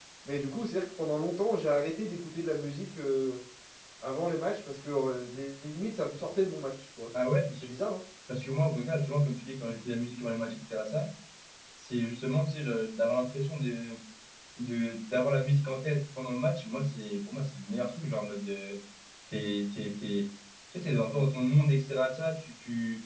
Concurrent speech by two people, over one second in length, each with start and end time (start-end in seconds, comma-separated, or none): none